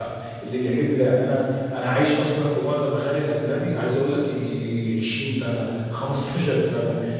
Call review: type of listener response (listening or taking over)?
listening